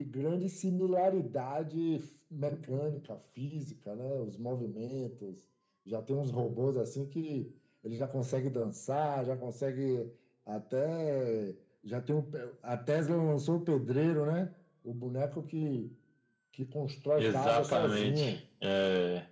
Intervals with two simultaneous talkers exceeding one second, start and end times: 17.2-18.4

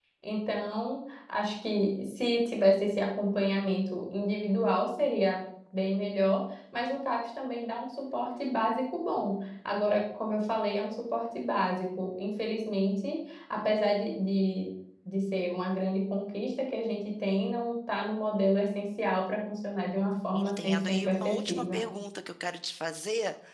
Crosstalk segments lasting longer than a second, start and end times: 20.3-21.8

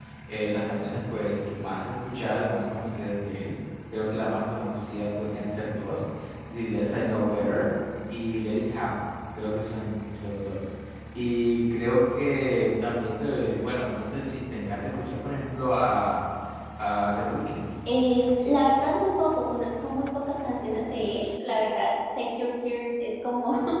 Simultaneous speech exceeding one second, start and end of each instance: none

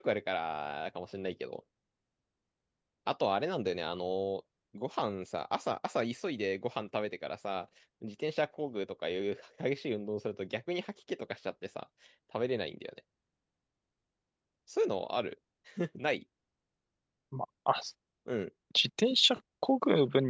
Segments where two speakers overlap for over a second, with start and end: none

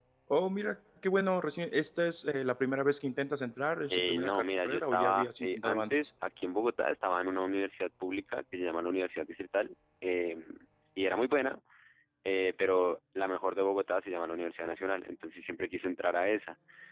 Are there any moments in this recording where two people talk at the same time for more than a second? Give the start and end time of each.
3.9-6.1

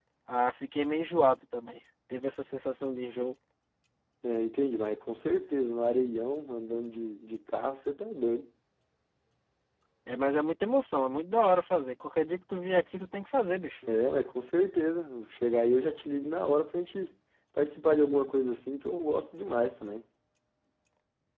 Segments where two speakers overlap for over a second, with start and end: none

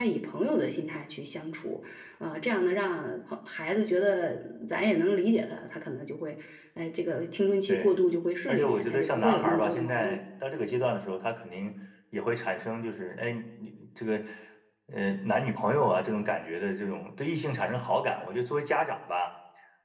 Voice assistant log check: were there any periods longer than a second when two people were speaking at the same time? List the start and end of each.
8.5-10.2

